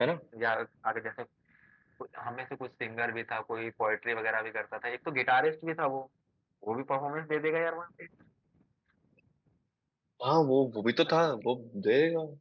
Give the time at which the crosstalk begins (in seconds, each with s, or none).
none